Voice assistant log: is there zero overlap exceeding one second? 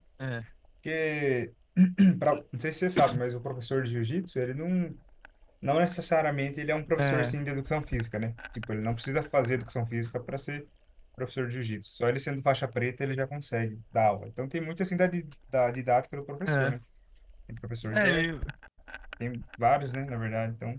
Yes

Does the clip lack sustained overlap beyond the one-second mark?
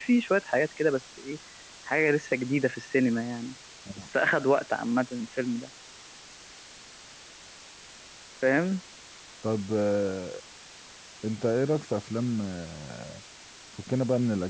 Yes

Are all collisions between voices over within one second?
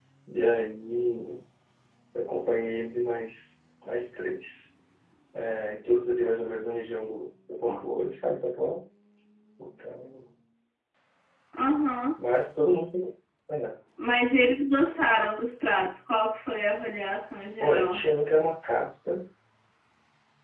Yes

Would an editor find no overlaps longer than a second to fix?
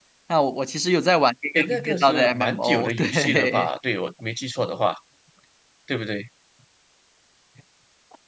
No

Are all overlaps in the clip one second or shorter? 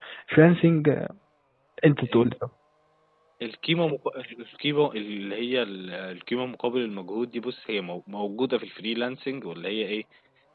Yes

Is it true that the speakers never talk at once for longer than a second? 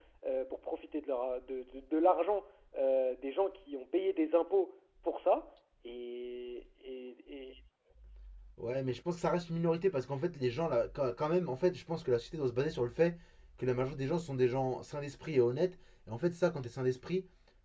Yes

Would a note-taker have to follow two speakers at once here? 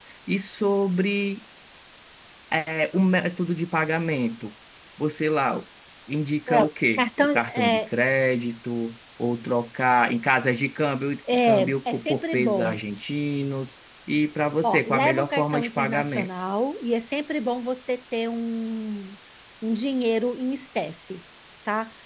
Yes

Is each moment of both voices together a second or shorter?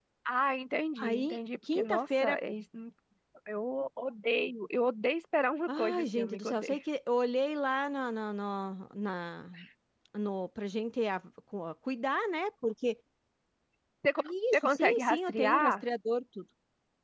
No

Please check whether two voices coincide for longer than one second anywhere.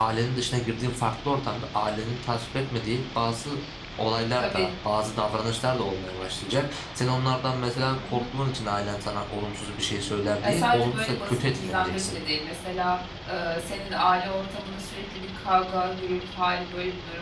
Yes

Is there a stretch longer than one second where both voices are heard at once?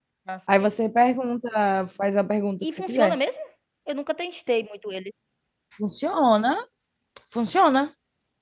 No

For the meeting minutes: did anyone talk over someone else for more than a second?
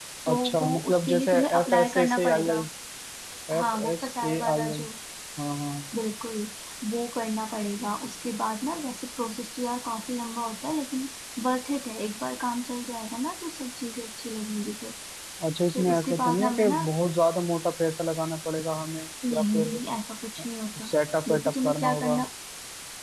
Yes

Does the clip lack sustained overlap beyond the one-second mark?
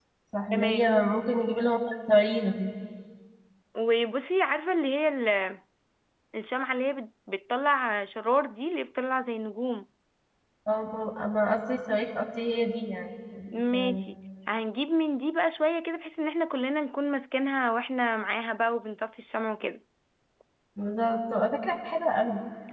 Yes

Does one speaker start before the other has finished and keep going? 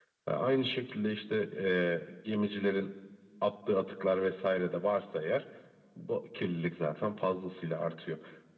No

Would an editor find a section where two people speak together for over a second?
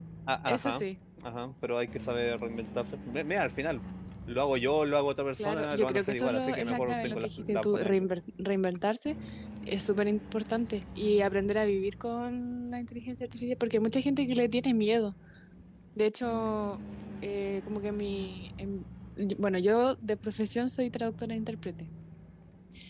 Yes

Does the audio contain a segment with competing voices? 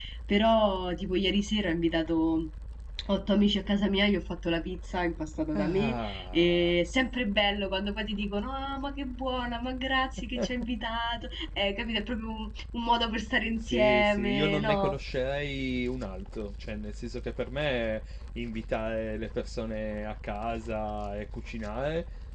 Yes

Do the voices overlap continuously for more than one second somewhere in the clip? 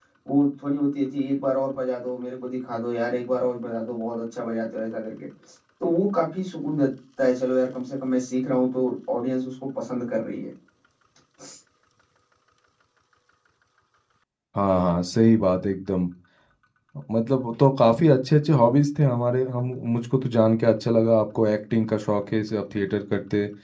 No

